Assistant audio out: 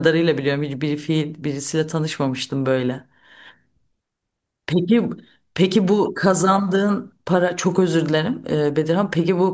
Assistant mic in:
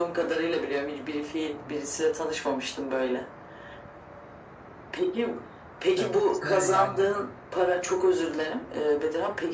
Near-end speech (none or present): present